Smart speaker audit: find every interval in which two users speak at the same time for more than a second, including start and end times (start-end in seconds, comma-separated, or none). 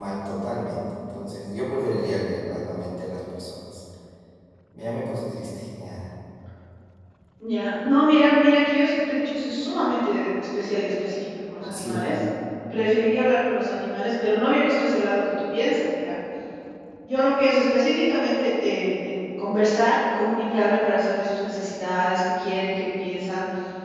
none